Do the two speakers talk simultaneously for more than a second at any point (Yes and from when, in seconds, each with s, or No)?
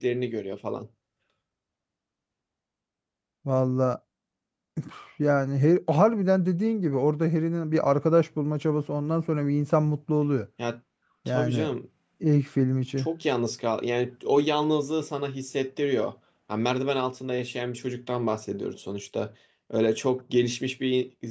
No